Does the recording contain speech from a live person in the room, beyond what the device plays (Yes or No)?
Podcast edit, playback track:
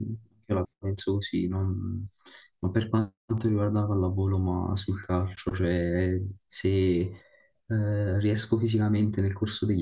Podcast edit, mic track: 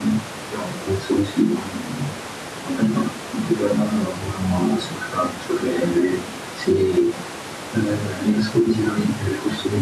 No